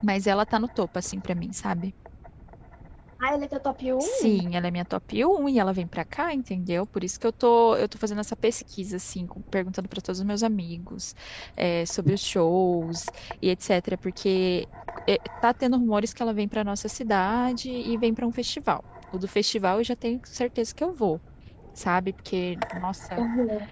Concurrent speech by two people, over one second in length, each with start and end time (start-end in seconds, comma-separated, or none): none